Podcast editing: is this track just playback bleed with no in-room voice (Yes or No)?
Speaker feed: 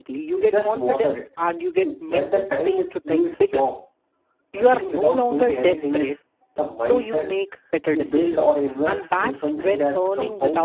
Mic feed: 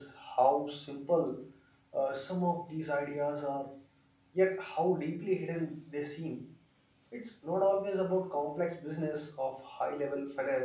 No